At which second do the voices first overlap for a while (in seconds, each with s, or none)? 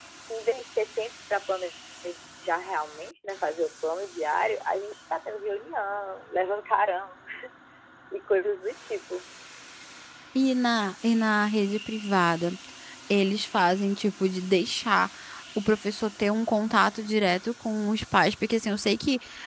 none